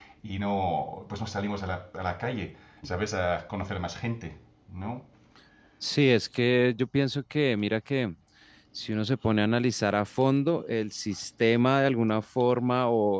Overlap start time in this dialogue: none

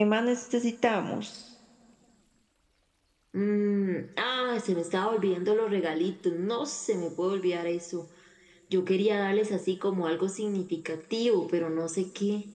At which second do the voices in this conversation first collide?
none

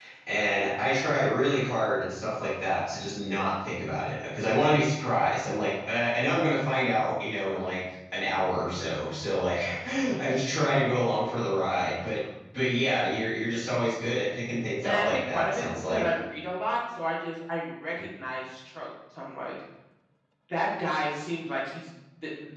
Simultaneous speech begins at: 14.8 s

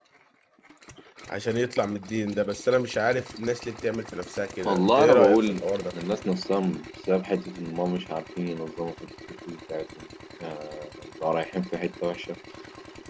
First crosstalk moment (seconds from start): 4.7 s

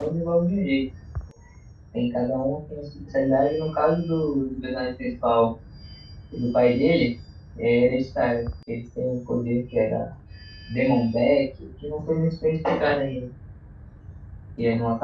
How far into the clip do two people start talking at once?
none

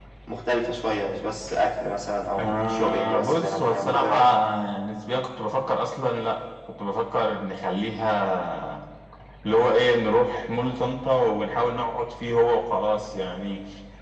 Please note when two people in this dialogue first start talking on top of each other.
2.4 s

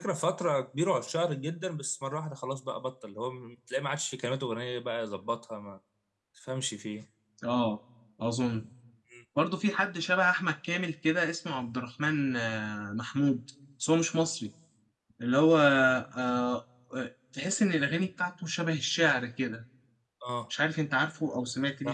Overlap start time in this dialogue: none

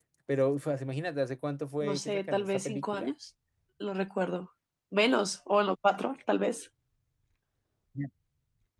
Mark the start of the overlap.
1.8 s

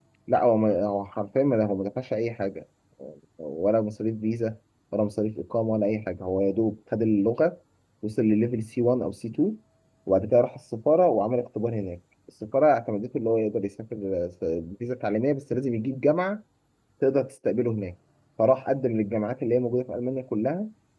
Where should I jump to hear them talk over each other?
none

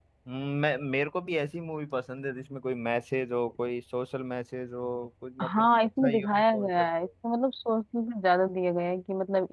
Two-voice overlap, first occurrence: 5.4 s

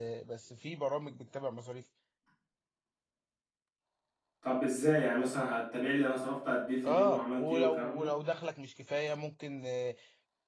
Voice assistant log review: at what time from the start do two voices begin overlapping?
6.8 s

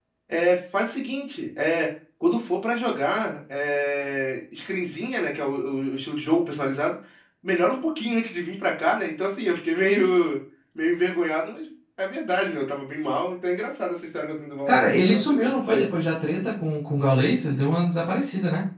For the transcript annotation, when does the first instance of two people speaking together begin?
14.7 s

